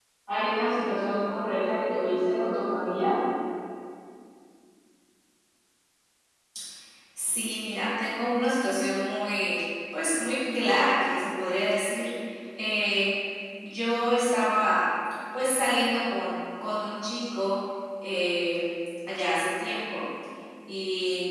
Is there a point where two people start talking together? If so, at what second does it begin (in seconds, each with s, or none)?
none